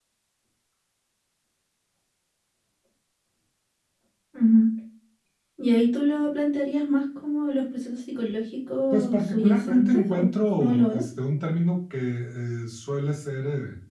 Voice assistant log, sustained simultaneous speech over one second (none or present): present